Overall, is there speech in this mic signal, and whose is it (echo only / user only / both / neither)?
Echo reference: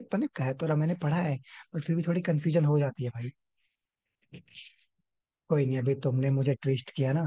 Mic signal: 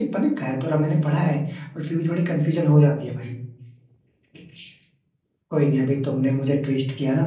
echo only